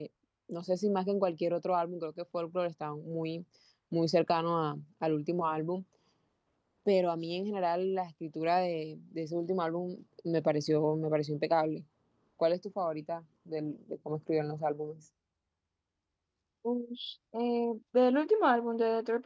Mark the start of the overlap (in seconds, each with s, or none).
none